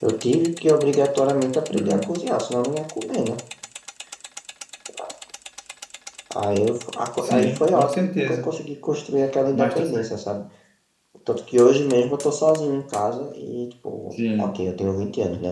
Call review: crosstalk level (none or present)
present